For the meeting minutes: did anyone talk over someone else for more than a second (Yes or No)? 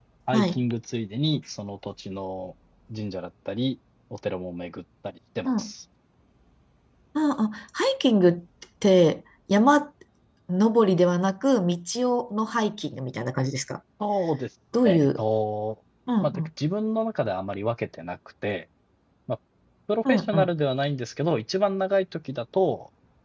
No